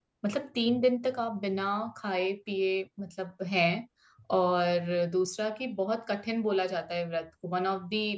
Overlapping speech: No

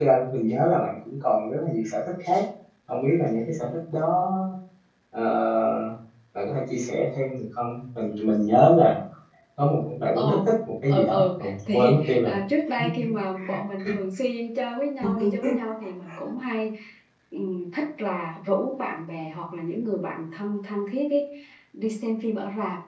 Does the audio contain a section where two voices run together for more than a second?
Yes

